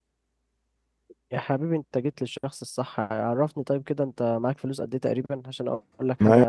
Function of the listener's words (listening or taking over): taking over